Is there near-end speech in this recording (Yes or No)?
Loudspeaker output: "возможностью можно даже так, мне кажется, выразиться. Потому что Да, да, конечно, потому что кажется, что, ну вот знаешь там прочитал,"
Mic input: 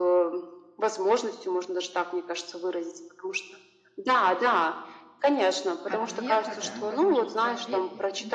Yes